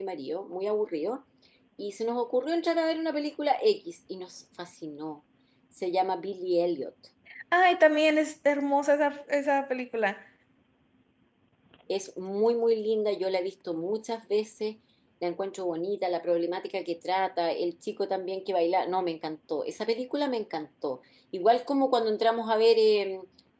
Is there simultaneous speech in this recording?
No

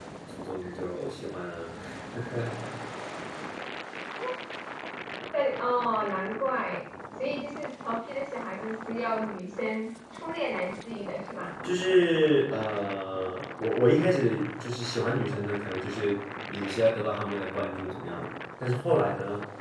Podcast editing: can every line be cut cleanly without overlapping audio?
Yes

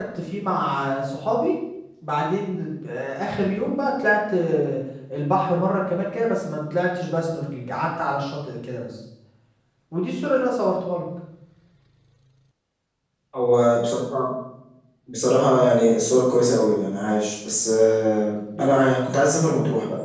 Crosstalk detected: No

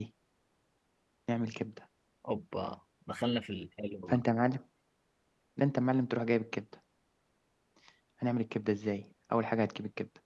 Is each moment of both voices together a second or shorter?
Yes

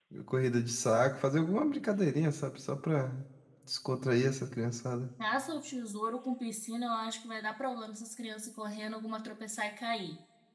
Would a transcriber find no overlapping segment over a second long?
Yes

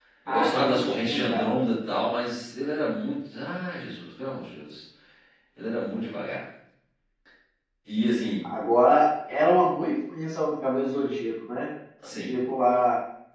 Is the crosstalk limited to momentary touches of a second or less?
No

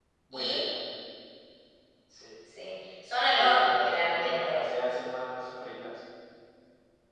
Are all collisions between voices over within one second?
No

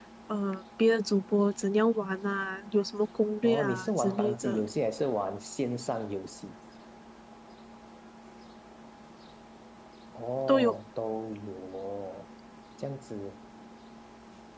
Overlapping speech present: Yes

